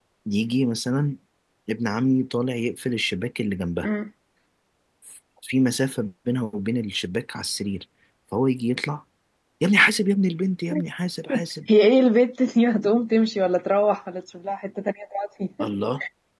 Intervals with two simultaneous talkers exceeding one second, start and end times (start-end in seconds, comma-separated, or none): none